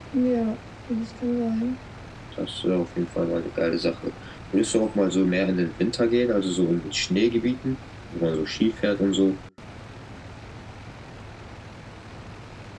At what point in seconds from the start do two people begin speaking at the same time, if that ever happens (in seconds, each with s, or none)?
none